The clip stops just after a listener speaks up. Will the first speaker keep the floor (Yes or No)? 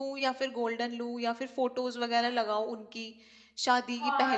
No